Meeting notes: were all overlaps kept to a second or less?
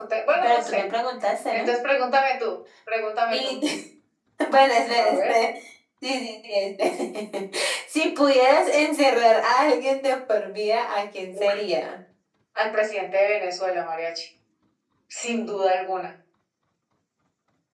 Yes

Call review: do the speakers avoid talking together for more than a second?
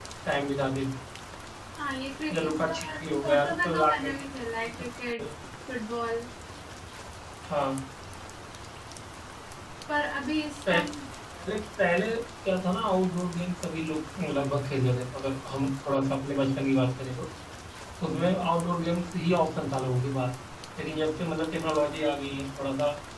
No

